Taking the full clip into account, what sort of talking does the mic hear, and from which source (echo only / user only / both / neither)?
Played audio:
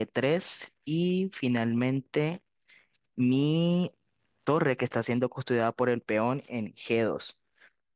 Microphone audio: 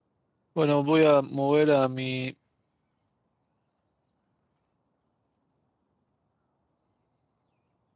user only